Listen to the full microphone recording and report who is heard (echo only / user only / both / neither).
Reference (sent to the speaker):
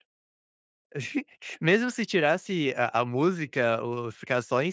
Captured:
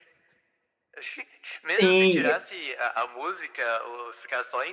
both